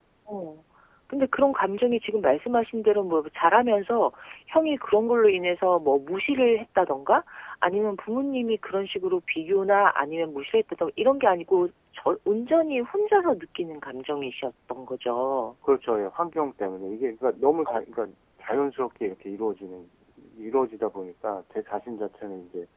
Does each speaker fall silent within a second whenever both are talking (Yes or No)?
Yes